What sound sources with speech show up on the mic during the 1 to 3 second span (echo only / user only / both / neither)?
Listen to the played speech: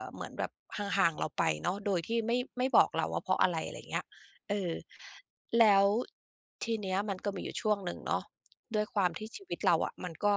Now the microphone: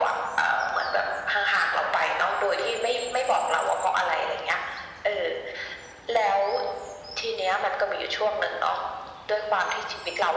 echo only